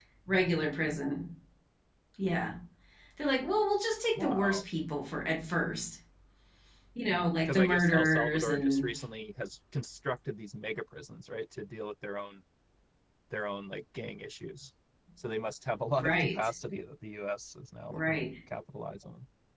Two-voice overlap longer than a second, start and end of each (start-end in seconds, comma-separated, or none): 7.5-8.9